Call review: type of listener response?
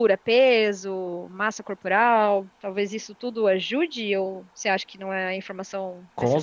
taking over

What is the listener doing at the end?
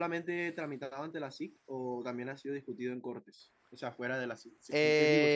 taking over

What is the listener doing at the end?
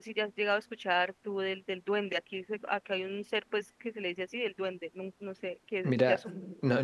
taking over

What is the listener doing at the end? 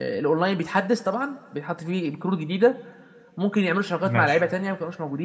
listening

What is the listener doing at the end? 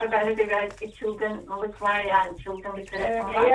taking over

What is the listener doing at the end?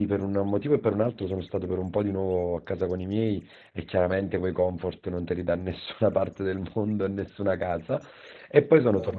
listening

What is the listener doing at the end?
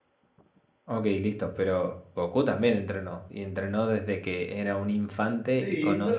taking over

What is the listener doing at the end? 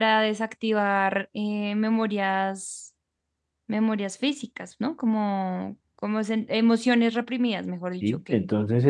taking over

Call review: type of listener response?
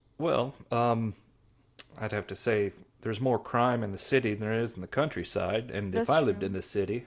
listening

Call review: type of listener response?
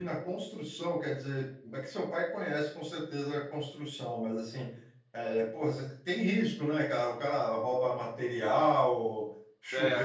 listening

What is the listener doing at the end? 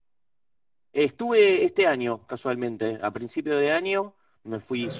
listening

